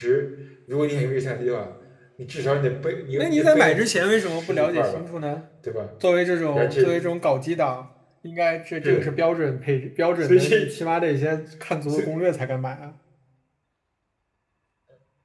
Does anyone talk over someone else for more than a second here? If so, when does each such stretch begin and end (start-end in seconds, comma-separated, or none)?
3.1-5.0